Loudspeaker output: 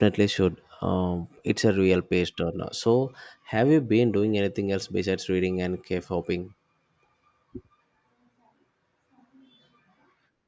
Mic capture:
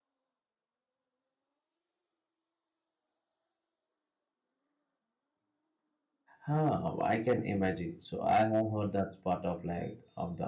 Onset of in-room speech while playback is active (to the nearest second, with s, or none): 6 s